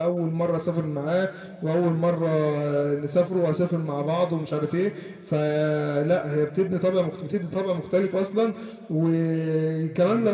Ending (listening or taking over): listening